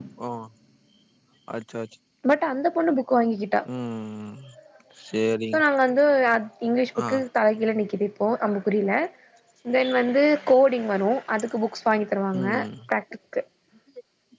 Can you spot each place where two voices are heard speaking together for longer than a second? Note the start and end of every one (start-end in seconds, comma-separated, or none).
none